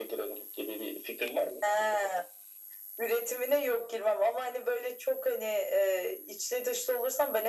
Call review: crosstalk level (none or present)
none